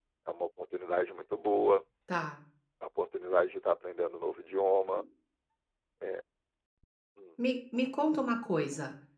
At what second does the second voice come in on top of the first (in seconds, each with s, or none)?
none